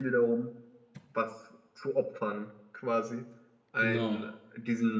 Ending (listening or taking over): listening